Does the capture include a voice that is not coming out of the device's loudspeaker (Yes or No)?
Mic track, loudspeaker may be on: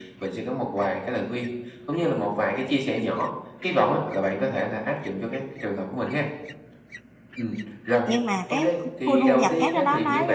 Yes